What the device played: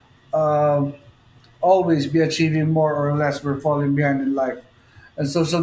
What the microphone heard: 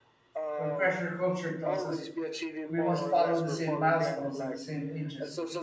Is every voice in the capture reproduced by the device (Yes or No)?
No